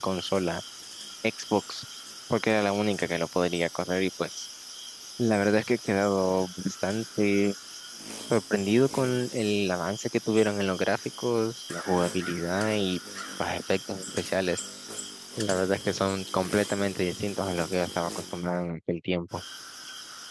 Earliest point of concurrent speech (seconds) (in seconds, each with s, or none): none